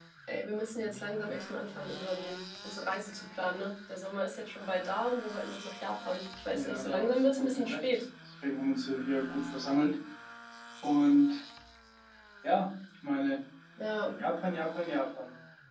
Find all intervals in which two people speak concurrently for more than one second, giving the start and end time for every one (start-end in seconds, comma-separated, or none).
6.5-8.0